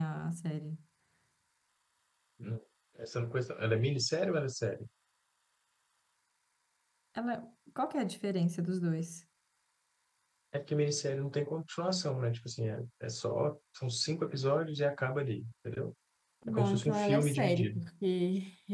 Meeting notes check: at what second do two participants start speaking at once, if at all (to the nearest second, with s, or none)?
16 s